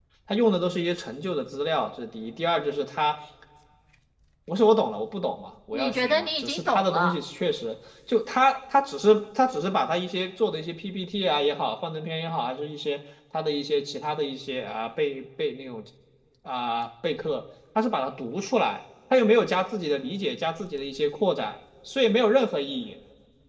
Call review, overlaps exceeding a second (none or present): present